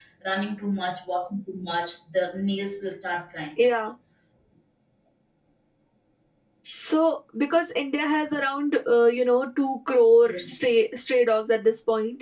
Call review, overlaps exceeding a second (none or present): none